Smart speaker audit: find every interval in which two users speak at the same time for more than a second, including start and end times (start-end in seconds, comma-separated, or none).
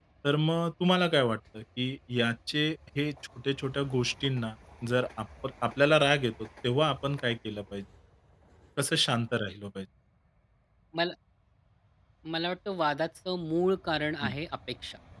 none